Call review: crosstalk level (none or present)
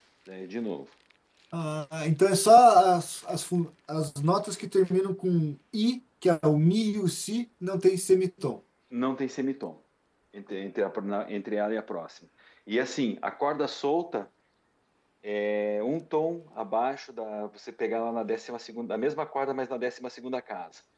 none